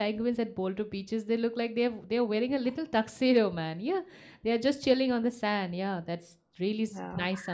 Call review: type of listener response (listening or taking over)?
taking over